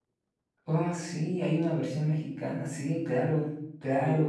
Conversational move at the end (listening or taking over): taking over